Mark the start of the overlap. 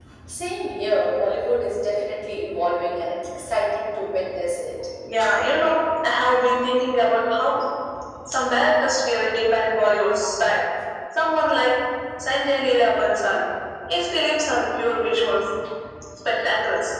none

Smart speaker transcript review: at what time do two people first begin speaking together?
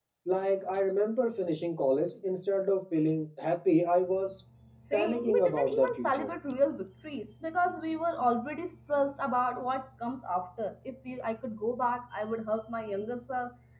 4.9 s

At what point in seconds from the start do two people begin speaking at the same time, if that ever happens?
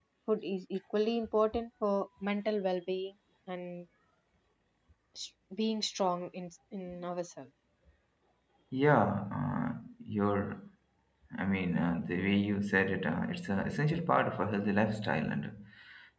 none

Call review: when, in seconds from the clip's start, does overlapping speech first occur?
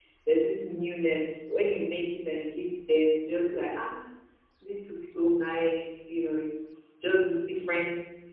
none

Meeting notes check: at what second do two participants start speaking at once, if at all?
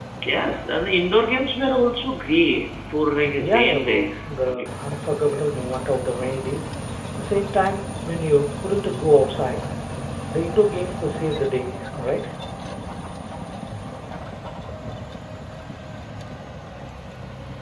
3.3 s

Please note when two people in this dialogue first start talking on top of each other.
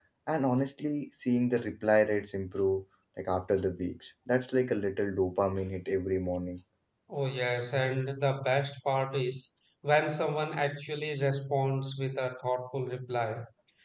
none

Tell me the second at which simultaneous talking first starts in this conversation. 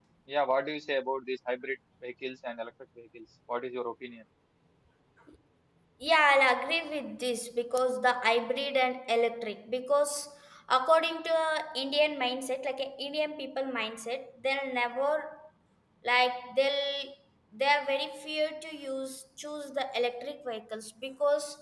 none

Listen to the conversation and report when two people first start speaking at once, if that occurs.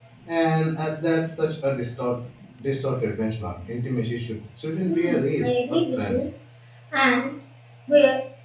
4.8 s

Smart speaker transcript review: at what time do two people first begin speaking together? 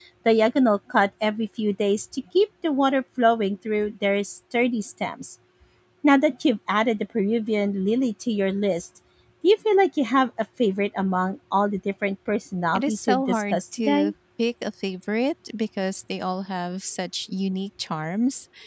12.7 s

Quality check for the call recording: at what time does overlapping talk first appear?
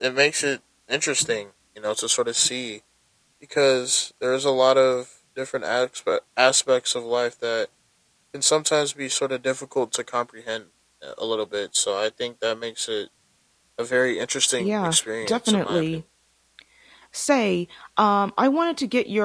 14.6 s

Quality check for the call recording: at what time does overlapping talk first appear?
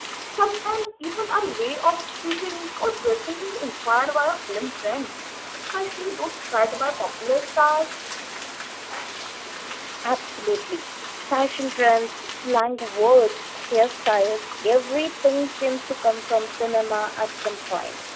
none

